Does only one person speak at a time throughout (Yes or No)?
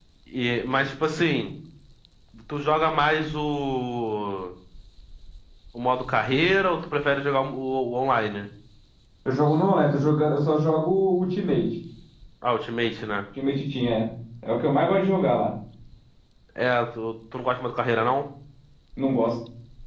Yes